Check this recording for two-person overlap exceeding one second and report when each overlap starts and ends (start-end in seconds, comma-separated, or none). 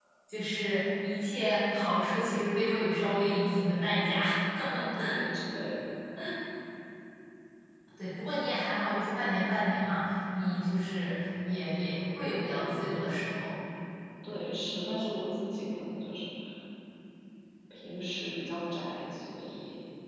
none